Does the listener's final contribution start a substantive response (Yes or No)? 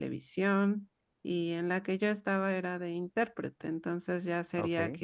No